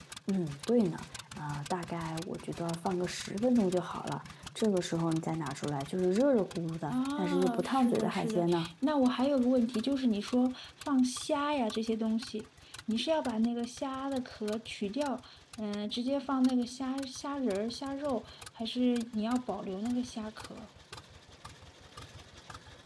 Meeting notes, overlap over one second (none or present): present